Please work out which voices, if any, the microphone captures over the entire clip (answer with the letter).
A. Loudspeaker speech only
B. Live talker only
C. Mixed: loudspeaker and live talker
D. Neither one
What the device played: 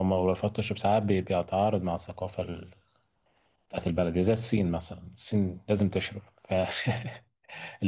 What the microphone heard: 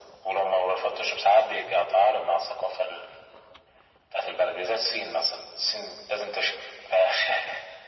A